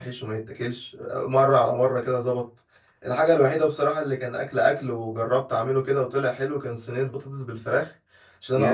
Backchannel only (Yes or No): Yes